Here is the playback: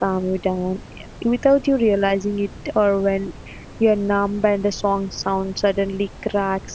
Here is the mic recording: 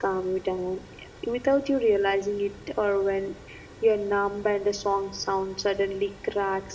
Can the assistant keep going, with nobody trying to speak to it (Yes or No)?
Yes